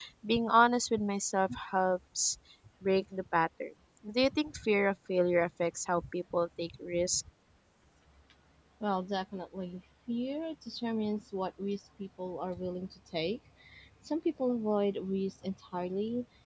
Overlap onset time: none

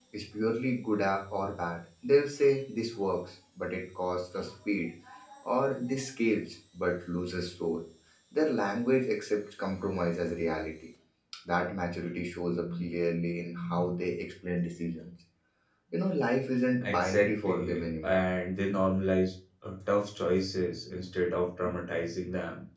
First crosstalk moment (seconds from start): 16.8 s

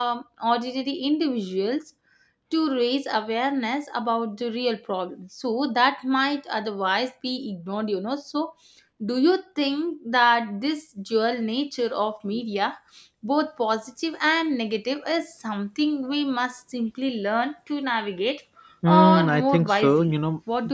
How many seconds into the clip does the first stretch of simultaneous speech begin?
18.9 s

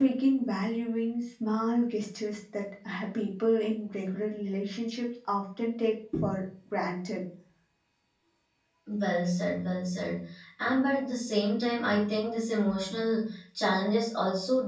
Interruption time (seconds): none

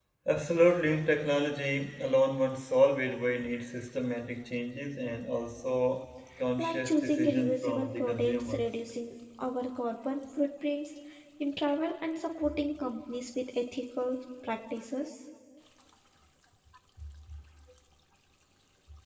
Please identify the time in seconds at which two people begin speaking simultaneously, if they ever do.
6.6 s

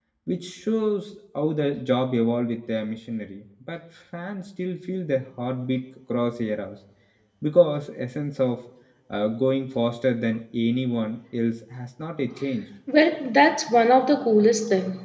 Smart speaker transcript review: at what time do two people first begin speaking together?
none

